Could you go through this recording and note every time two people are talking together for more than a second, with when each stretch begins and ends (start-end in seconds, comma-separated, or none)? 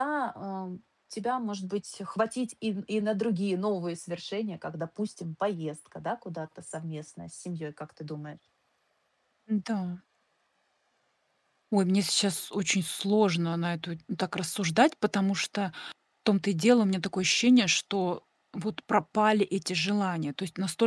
none